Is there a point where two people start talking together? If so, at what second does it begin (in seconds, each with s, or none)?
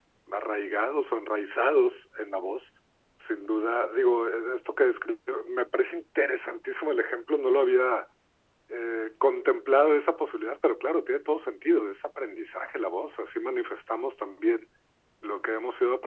none